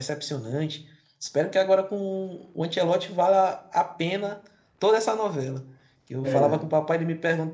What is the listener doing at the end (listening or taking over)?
listening